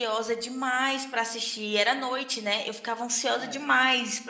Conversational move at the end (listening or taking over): listening